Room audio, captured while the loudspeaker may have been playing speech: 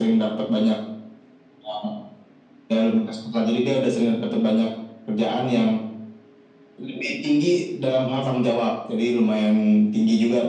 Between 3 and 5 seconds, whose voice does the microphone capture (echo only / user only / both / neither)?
echo only